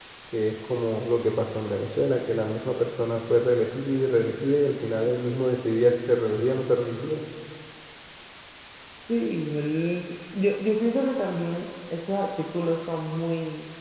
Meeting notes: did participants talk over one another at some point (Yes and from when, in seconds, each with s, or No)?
No